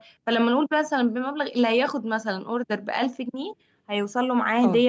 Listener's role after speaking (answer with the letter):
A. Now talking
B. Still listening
B